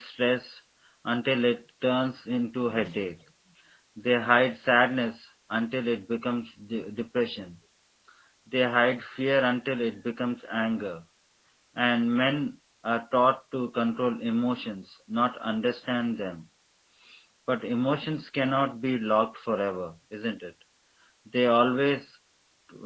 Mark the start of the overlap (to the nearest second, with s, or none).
none